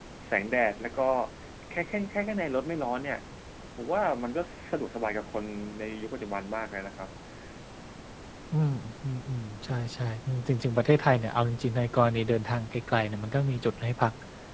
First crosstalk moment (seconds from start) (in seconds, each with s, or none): none